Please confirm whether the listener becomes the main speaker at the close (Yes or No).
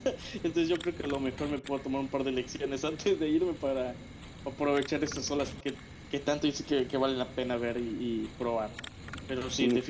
No